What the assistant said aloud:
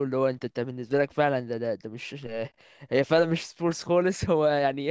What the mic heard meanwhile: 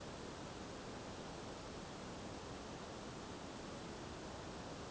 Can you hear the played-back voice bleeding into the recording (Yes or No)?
No